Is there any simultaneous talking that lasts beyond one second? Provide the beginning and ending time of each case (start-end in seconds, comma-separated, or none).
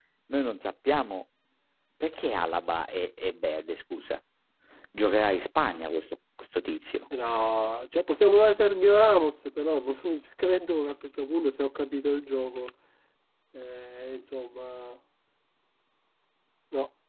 none